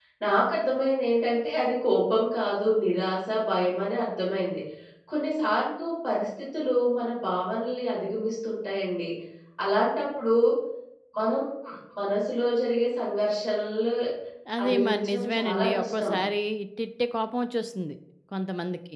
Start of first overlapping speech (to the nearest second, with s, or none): 15 s